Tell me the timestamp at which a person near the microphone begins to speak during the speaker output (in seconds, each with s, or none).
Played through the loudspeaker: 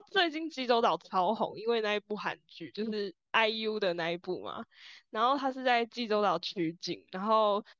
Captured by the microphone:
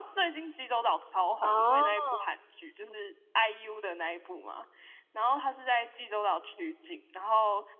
1.4 s